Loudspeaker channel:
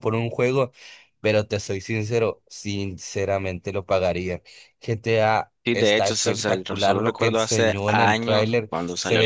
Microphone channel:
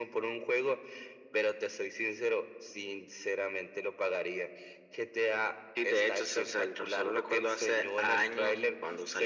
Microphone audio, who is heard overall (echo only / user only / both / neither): echo only